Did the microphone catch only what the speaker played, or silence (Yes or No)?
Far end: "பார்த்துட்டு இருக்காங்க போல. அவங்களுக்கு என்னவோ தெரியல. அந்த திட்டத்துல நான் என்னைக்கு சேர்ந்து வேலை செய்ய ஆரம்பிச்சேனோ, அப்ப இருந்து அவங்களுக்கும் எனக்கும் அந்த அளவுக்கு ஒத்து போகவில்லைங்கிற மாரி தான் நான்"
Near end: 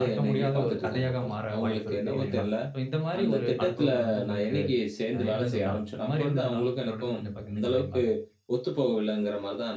No